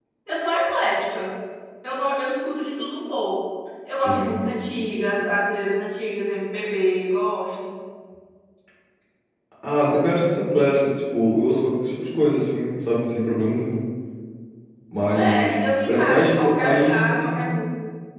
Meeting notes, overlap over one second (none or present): present